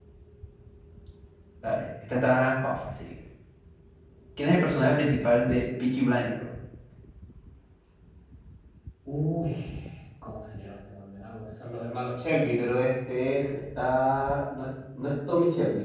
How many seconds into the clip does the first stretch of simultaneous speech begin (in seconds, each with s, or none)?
none